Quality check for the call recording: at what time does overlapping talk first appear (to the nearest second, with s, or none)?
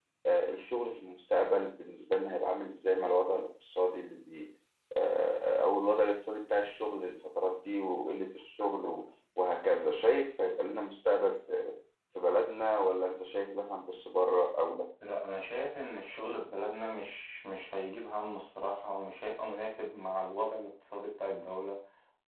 none